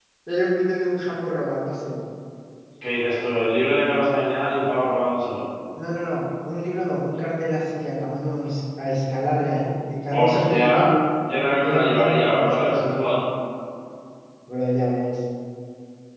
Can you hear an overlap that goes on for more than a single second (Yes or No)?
Yes